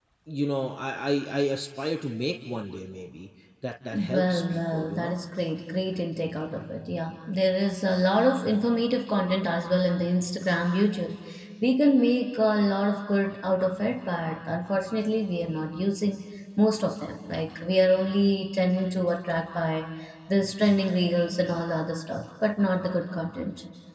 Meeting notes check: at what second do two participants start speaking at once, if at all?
4 s

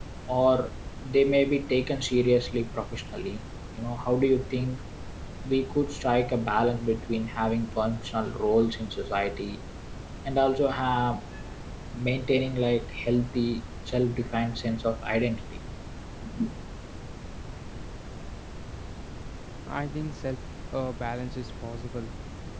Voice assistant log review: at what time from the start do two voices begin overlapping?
none

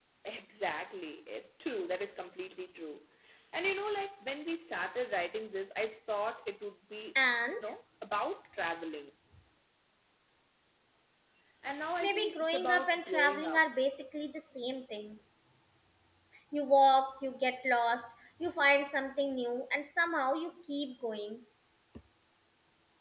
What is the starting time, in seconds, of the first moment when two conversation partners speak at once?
12 s

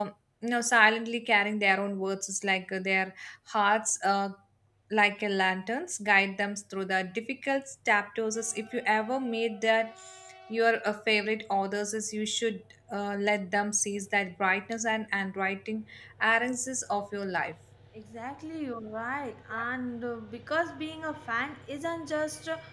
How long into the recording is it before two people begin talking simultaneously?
none

